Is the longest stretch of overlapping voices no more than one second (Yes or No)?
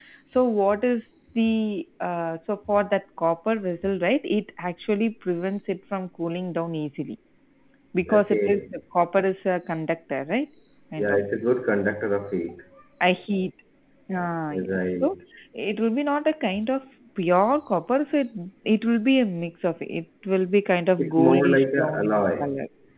No